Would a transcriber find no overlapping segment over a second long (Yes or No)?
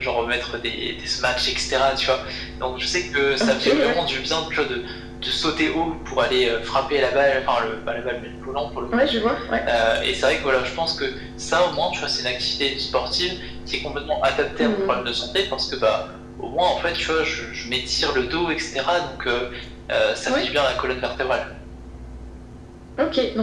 Yes